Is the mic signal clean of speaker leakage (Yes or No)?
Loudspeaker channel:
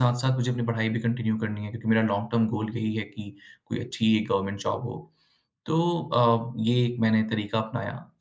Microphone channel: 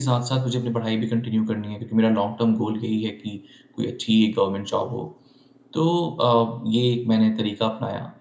No